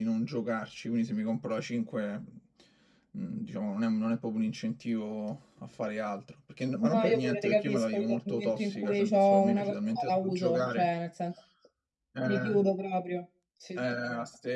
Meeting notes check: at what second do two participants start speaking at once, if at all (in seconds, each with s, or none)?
6.8 s